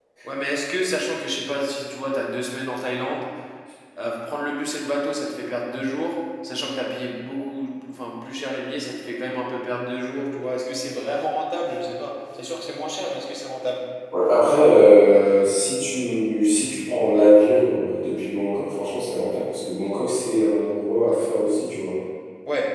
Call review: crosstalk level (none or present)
none